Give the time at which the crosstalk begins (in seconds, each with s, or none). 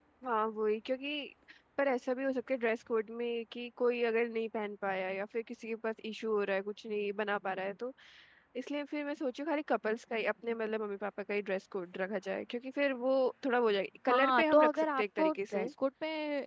14.1 s